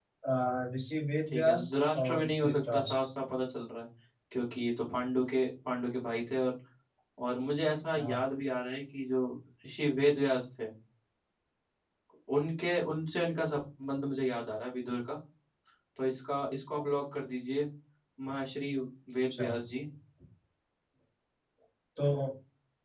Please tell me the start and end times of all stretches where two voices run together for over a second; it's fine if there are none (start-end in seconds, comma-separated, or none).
1.3-2.9